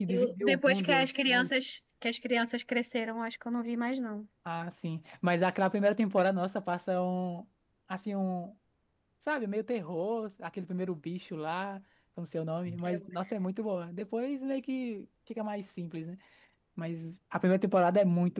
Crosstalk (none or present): present